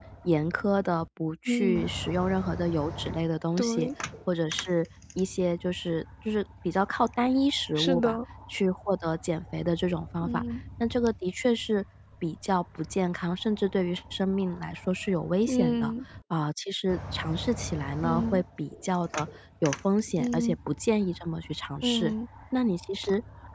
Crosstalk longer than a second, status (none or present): none